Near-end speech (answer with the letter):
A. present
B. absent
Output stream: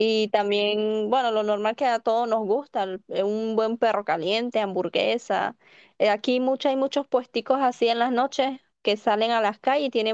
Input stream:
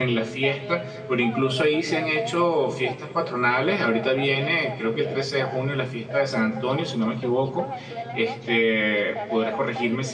A